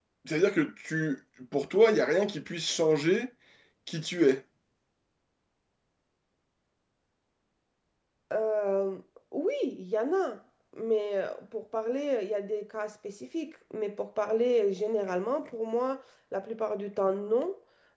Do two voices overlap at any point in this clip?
No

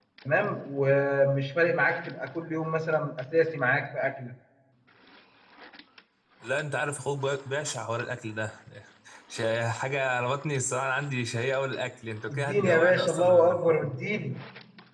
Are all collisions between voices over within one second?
No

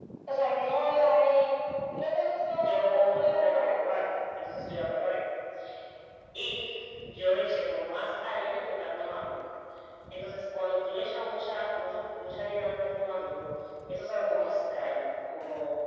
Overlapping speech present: Yes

